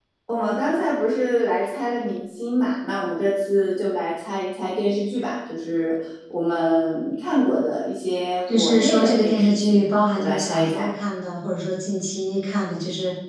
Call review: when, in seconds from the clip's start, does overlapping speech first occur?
8.5 s

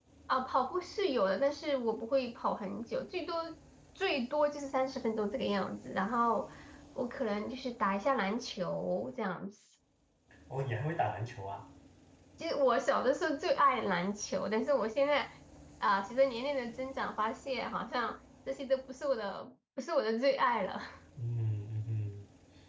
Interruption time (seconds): none

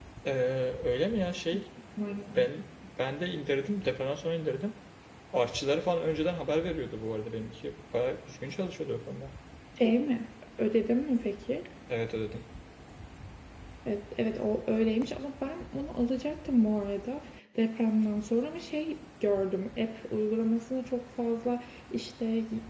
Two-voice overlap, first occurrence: none

